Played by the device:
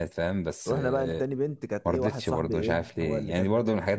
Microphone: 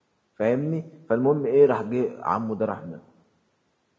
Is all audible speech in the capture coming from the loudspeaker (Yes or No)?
No